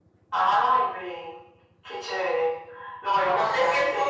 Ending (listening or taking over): taking over